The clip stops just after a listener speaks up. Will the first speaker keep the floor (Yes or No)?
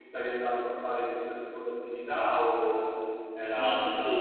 No